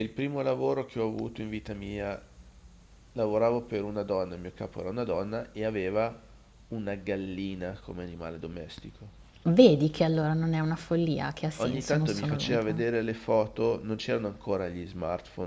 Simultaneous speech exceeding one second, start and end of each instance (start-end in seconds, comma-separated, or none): 11.6-12.8